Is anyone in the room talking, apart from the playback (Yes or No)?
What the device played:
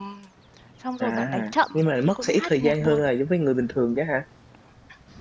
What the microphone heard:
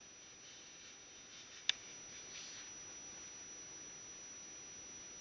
No